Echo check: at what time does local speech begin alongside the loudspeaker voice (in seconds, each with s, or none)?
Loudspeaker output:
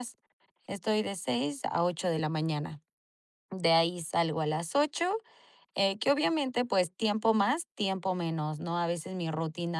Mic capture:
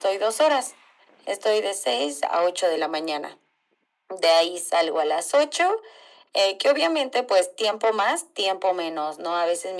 none